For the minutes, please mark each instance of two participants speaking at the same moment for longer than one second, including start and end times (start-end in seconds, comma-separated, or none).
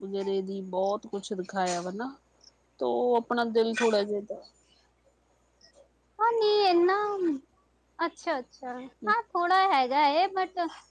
none